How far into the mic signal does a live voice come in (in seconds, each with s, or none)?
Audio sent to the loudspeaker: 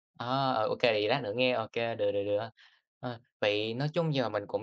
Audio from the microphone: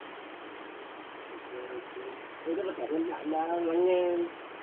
1.3 s